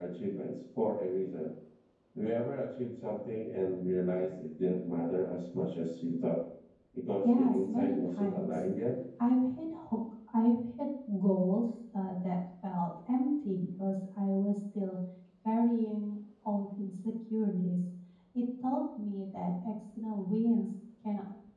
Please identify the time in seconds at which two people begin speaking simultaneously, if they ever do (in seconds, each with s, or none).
7.2 s